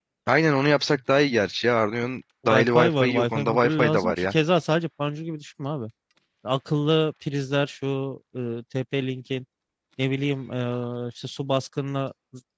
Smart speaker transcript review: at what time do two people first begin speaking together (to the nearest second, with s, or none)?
2 s